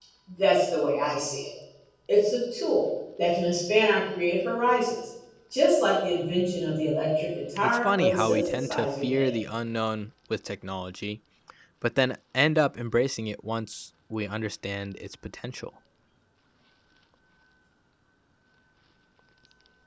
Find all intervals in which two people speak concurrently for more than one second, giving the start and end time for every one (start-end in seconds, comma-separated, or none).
7.6-9.3